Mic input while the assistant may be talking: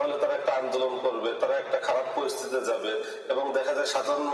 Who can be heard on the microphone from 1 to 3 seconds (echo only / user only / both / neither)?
echo only